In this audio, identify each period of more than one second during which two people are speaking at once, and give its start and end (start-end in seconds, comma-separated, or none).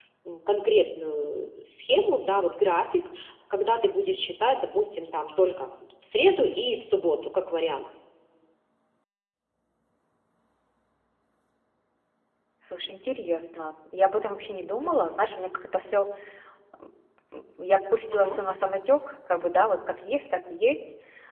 none